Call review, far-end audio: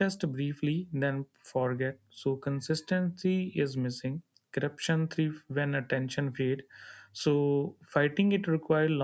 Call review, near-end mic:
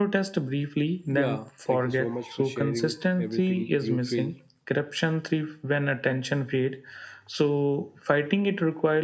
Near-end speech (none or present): present